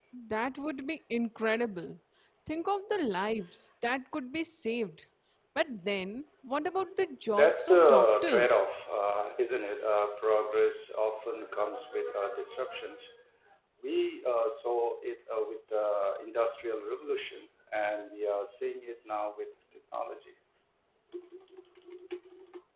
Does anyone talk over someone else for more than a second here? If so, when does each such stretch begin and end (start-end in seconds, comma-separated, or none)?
7.3-8.5